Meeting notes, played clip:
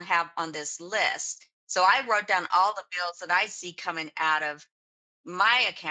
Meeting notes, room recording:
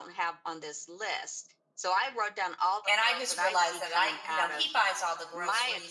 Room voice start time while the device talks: 2.8 s

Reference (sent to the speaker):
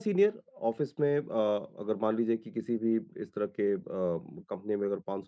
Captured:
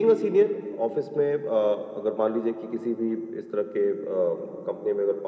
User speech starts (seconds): none

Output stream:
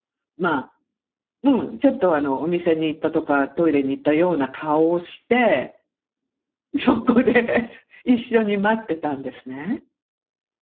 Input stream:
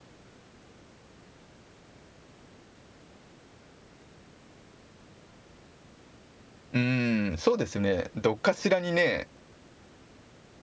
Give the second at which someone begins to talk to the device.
6.7 s

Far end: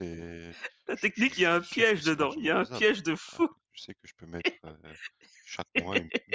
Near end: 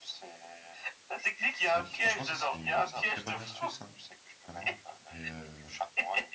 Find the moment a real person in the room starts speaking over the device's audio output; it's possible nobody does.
1.7 s

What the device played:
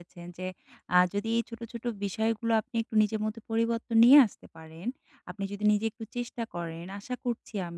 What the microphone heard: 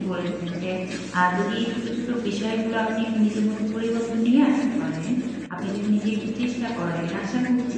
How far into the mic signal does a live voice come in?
none

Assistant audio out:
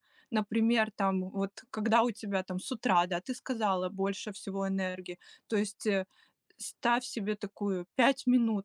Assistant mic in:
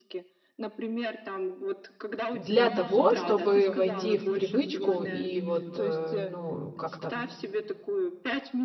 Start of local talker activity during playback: 2.3 s

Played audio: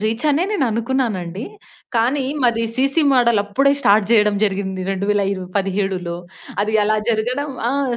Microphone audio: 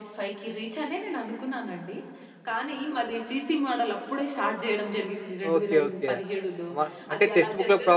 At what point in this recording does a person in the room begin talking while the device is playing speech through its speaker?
5.5 s

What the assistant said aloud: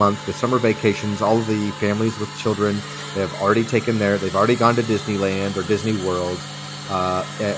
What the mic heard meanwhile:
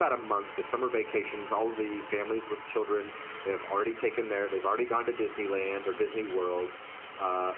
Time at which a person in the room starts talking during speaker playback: none

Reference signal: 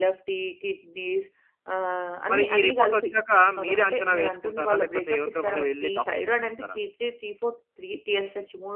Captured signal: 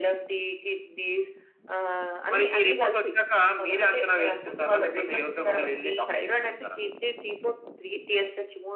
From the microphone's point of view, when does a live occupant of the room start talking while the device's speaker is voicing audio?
none

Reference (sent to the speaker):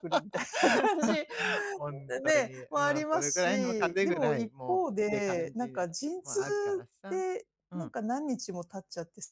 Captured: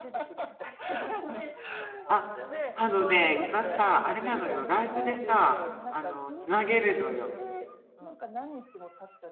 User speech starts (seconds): 2.0 s

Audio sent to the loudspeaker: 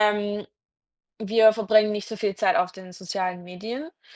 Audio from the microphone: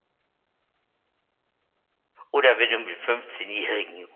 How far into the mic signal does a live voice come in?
2.3 s

